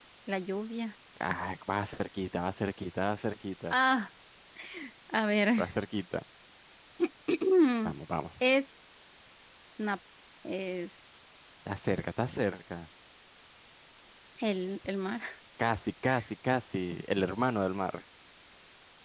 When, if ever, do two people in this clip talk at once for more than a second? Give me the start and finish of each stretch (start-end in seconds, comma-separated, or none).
none